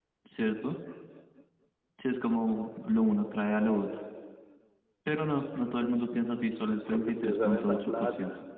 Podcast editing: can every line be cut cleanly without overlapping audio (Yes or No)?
No